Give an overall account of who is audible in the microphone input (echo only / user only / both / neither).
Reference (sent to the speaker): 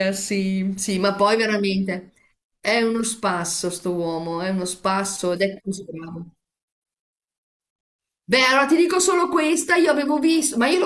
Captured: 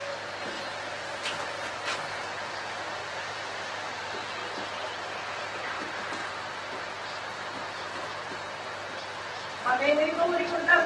user only